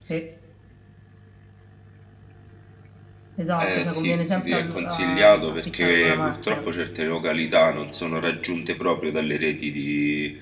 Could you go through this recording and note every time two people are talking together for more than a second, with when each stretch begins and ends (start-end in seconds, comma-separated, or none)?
3.6-6.7